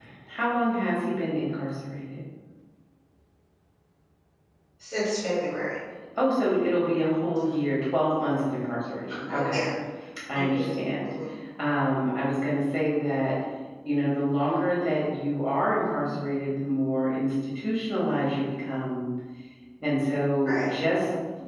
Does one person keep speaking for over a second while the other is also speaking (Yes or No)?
No